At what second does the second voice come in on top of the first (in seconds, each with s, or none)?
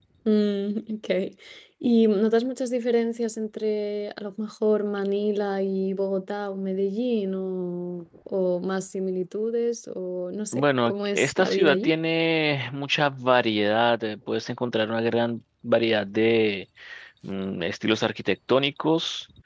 10.5 s